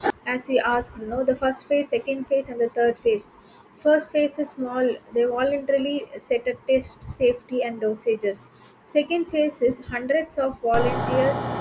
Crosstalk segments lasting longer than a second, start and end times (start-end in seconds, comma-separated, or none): none